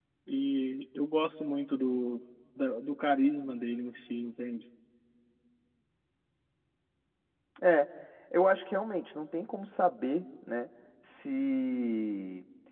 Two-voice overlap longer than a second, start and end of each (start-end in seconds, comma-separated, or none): none